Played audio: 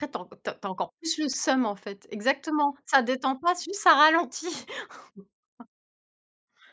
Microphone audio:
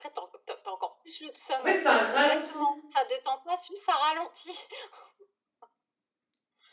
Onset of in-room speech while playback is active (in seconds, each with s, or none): 1.6 s